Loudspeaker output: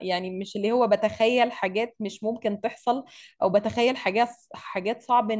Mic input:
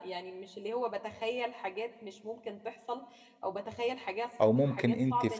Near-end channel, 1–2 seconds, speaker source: echo only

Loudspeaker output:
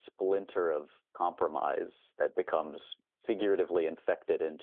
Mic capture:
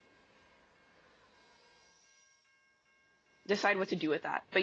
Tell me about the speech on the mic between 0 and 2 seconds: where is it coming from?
neither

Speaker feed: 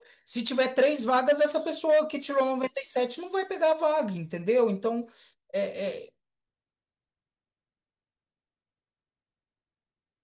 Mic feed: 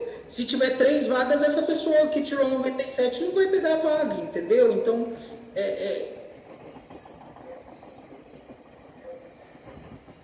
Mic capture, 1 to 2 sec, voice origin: echo only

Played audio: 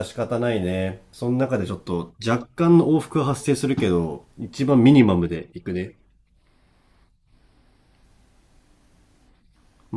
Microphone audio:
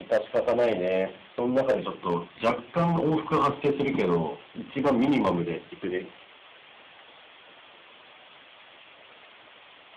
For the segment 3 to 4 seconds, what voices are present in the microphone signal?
echo only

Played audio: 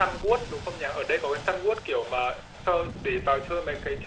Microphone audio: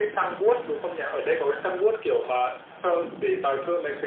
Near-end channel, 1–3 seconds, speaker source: echo only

